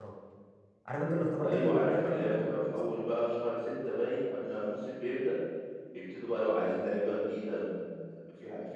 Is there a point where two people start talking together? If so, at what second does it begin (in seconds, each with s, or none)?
1.4 s